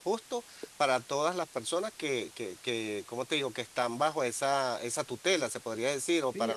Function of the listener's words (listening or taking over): taking over